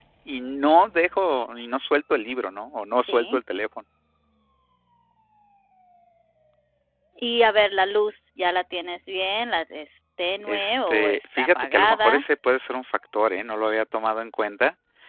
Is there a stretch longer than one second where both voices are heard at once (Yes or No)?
Yes